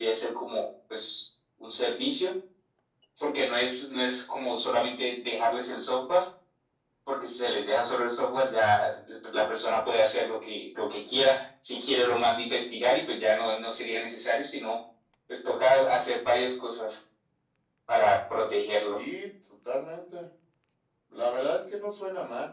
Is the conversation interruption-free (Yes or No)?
Yes